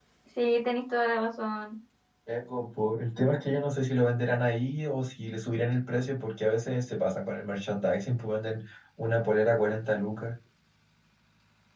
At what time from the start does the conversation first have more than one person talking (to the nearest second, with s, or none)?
none